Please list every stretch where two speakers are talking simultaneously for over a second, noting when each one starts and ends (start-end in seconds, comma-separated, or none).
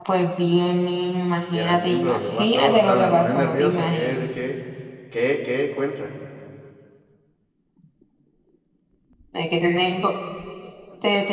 1.5-4.6